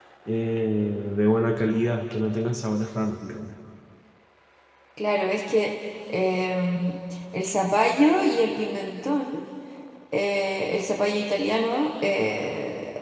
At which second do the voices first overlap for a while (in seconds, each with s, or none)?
none